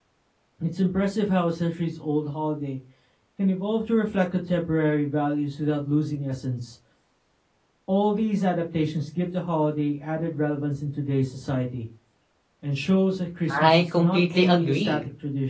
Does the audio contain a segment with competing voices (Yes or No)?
Yes